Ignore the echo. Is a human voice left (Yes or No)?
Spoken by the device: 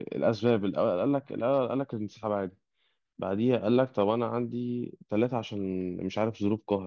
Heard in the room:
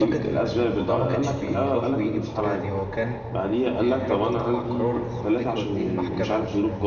Yes